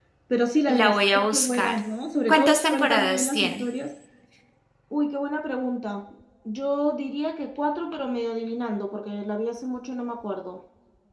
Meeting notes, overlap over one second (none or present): present